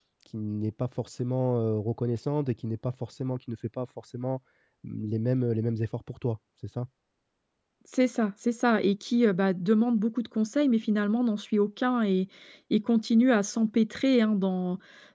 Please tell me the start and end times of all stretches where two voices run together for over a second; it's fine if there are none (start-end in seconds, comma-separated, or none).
none